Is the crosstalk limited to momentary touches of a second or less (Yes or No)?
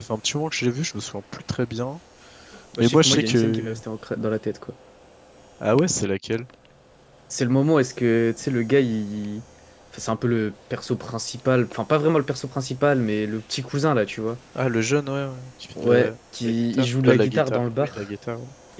No